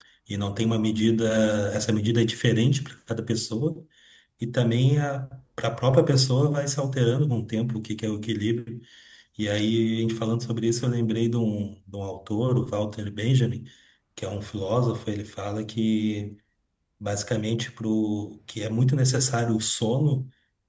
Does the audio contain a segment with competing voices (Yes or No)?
No